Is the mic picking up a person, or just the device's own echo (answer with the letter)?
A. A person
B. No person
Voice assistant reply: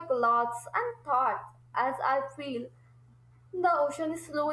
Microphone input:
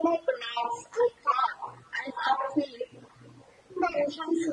B